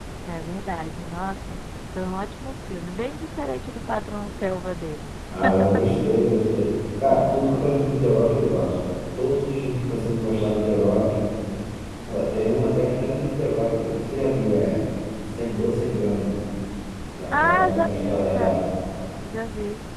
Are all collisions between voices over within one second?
No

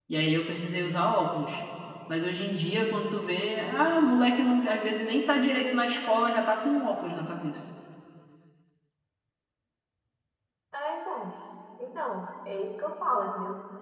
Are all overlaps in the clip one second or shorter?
Yes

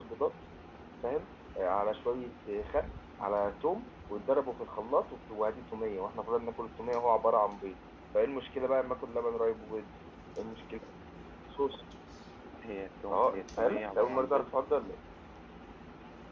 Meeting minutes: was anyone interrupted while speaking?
Yes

